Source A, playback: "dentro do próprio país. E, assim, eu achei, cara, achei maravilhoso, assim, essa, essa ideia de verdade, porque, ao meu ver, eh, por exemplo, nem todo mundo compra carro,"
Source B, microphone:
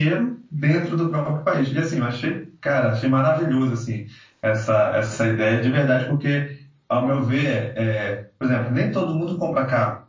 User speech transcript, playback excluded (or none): none